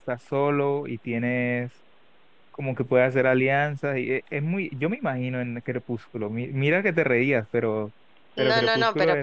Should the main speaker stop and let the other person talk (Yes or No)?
Yes